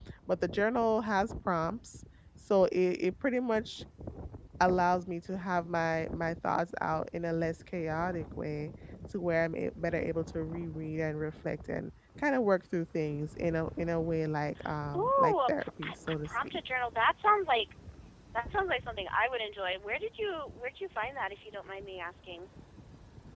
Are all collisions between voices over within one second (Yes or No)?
No